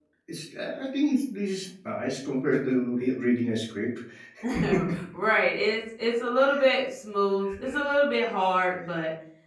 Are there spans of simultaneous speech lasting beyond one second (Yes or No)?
No